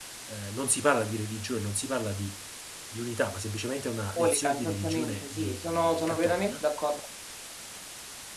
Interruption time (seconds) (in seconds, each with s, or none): 3.9 s